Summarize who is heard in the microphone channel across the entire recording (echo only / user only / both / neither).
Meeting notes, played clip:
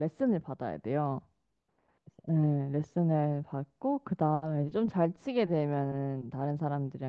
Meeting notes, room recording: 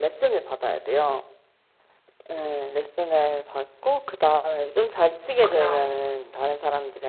both